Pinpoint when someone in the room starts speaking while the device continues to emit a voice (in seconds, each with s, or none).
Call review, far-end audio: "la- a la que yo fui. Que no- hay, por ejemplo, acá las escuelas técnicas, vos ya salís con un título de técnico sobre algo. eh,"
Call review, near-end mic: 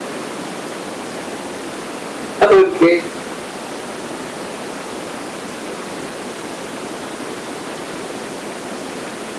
2.4 s